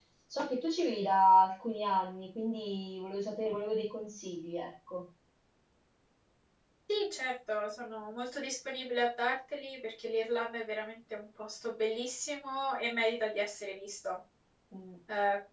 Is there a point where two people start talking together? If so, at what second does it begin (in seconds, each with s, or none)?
none